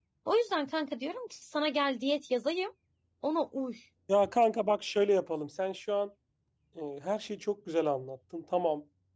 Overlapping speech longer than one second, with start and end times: none

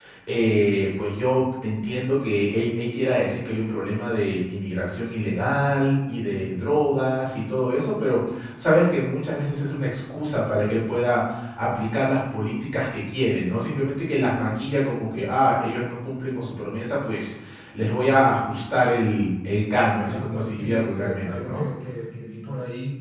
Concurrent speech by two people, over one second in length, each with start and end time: 20.1-21.6

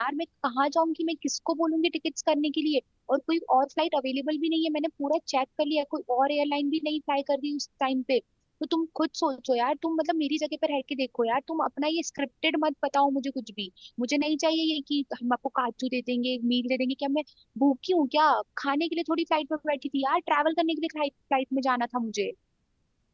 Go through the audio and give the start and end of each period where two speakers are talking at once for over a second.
none

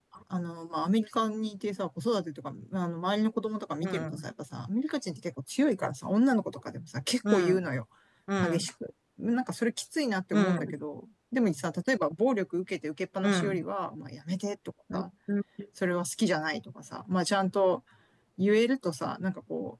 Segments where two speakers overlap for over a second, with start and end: none

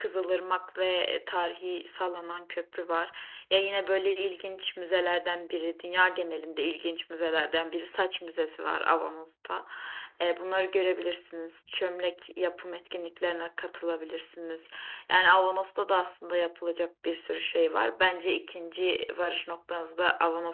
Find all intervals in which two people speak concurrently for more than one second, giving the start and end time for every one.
none

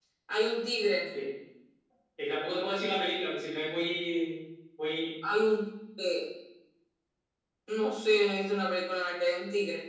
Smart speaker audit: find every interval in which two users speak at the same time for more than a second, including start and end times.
none

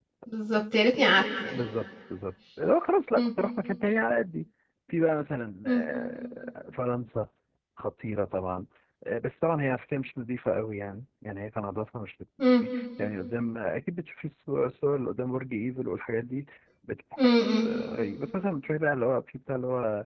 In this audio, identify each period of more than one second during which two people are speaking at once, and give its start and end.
none

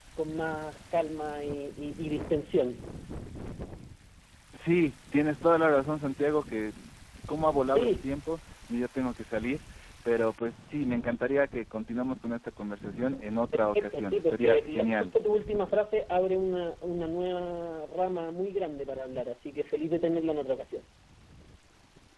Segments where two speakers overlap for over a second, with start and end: 13.5-15.2

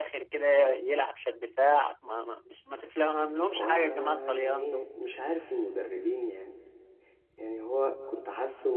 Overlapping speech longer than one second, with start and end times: 3.5-4.9

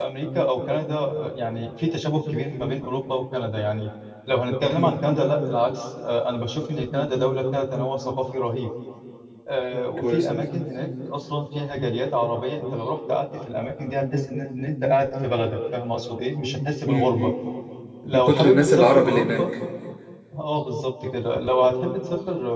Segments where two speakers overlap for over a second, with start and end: 18.1-19.5

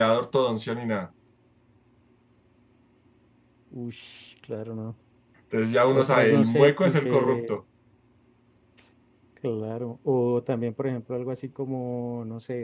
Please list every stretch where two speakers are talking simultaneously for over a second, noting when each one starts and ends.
5.9-7.5

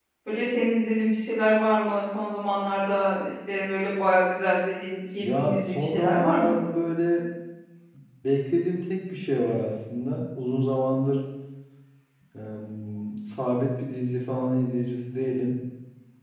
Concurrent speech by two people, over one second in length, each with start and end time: 5.2-6.6

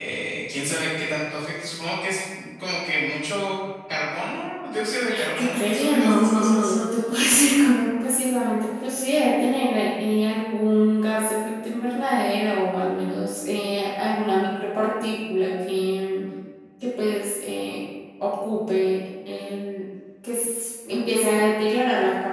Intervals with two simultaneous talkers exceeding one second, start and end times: 5.3-6.8

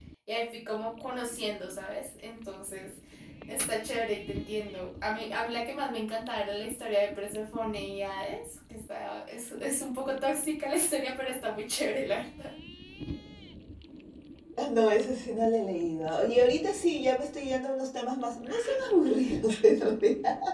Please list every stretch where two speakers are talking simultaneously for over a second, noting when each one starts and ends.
none

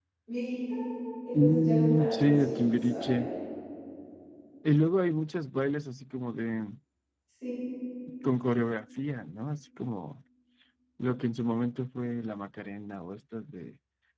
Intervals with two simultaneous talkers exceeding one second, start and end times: 1.3-3.2

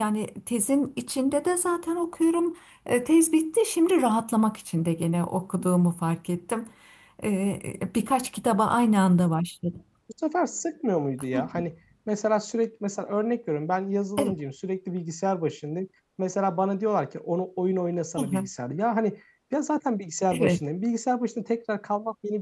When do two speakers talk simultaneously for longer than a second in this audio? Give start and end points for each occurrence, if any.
none

